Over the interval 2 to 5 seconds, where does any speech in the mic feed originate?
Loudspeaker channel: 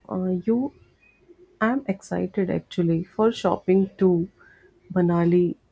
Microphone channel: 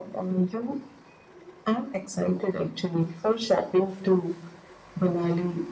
echo only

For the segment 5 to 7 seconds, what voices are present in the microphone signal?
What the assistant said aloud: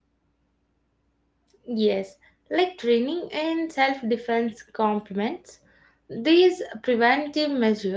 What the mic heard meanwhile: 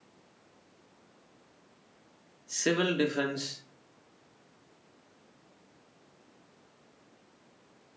neither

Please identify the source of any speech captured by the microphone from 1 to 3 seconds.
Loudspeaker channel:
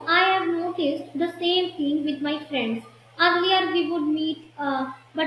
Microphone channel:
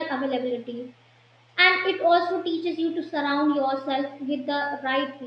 user only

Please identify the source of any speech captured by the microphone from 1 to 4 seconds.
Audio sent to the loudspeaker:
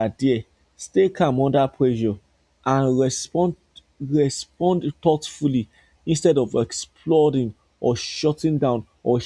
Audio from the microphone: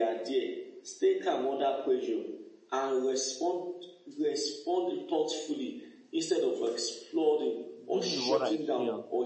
echo only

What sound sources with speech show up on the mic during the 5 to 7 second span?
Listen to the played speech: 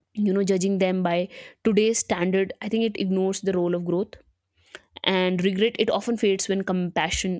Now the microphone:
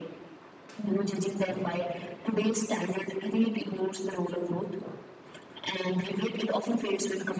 echo only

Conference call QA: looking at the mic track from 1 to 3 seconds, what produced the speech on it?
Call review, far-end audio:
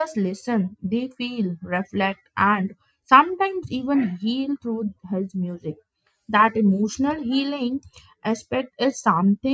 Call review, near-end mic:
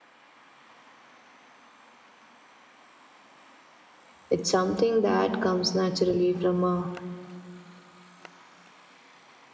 neither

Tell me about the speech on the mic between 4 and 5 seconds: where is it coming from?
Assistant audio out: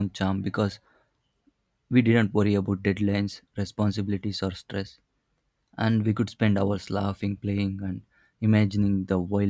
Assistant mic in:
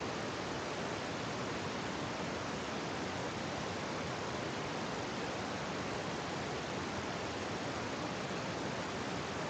neither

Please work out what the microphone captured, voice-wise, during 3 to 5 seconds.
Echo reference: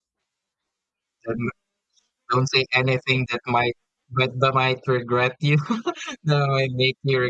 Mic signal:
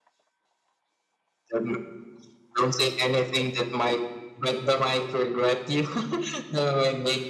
echo only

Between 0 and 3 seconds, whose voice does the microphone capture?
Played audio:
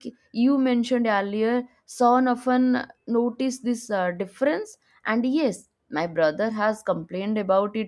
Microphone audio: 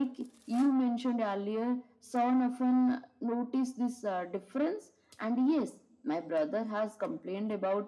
echo only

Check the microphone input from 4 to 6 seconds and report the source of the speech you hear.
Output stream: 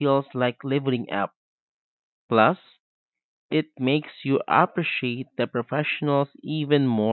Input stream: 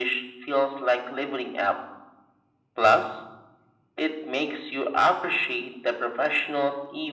echo only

